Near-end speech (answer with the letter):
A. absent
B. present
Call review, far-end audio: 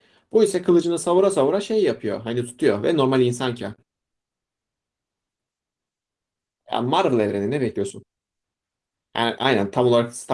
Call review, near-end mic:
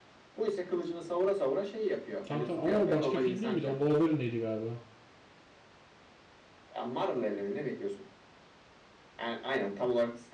B